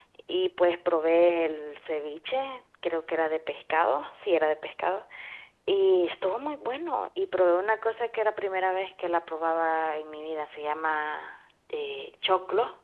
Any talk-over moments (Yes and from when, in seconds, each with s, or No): No